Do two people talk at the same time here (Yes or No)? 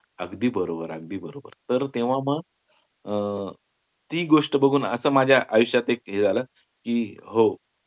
No